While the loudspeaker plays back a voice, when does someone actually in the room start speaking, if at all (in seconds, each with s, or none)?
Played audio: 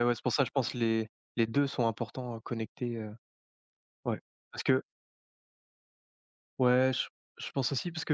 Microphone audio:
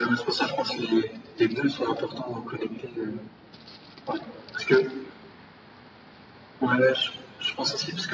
none